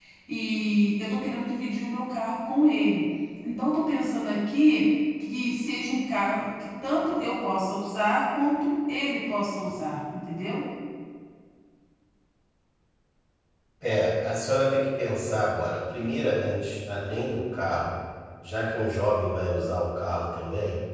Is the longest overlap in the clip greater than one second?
No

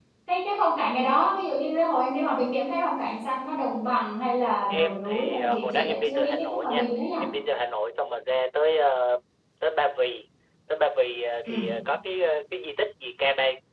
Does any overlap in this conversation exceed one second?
Yes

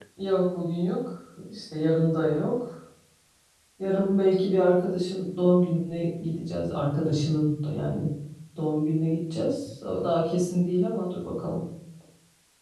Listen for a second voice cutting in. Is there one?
No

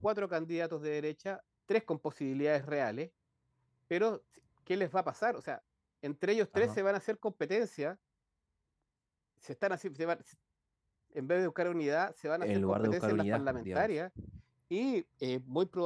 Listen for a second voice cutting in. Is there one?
Yes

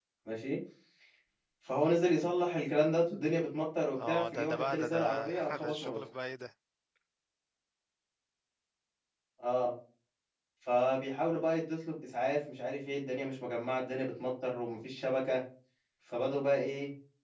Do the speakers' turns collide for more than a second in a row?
Yes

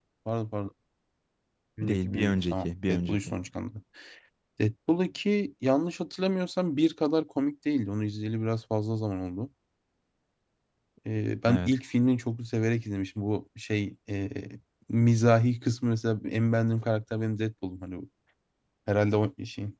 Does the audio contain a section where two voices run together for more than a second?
Yes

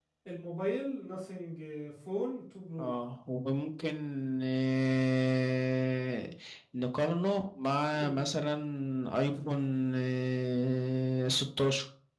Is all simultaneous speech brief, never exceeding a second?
Yes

